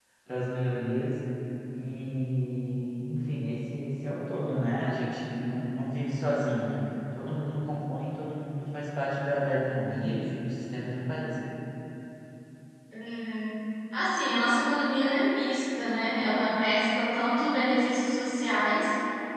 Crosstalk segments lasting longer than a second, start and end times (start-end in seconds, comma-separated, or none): none